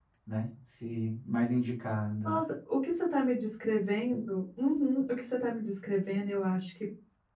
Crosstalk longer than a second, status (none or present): none